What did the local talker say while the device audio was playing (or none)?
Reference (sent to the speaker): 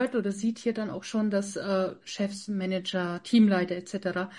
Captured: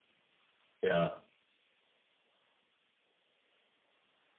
ja